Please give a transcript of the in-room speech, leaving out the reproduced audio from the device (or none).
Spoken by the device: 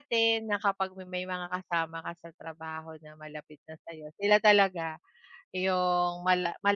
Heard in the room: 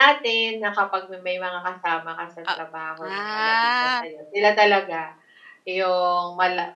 A ah.